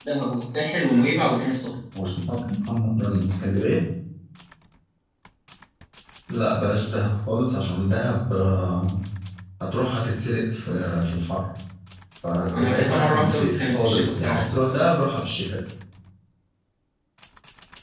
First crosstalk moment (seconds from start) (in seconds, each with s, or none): 12.5 s